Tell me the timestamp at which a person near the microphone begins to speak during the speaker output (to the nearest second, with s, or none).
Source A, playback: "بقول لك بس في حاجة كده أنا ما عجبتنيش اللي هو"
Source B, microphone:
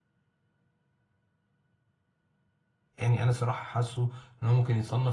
3 s